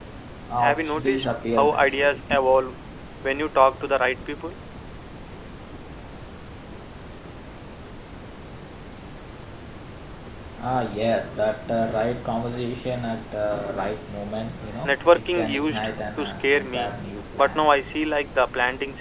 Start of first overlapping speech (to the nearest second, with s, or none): 1 s